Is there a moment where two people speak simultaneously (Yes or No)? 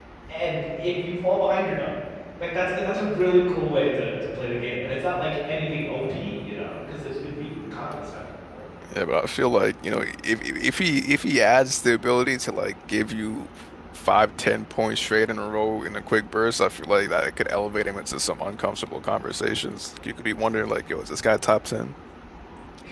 No